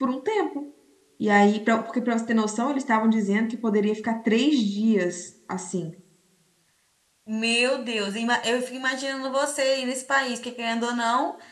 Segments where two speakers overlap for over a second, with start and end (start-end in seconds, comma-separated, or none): none